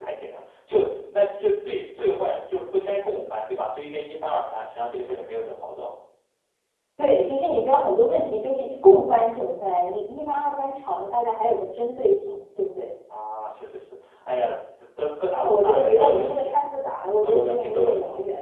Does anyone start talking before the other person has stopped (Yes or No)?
Yes